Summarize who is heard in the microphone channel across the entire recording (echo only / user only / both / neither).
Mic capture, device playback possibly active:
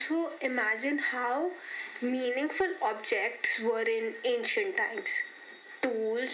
echo only